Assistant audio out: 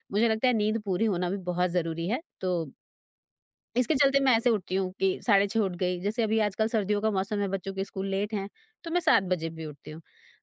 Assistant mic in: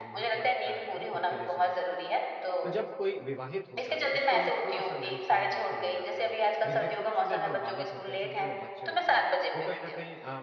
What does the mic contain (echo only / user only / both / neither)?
both